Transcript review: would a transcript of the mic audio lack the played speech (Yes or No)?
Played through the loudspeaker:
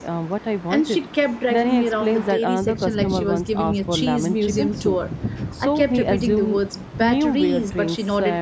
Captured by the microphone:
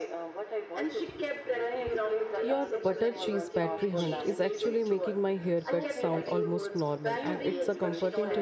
No